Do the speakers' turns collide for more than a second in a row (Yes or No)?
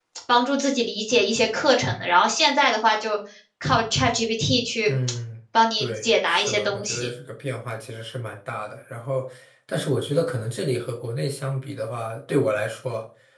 Yes